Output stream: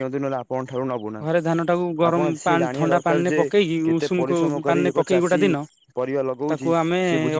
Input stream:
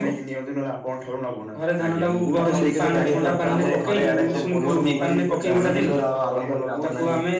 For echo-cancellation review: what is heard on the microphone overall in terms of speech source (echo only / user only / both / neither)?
both